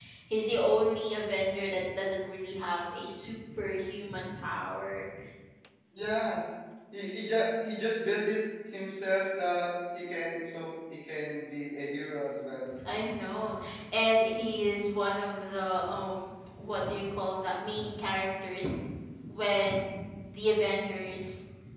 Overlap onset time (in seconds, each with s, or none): none